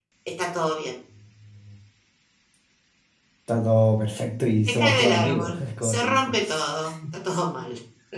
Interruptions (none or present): present